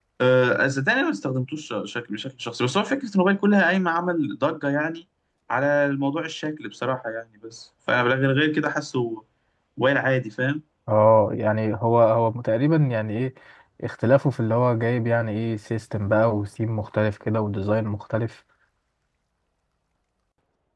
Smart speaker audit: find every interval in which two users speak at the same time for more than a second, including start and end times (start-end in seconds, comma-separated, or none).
none